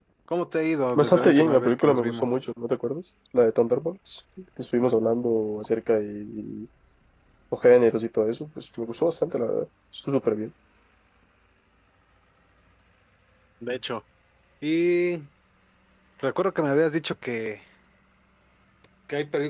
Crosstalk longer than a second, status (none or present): present